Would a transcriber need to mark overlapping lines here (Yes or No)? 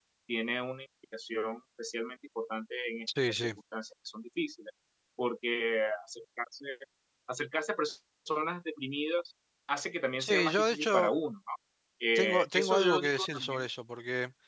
Yes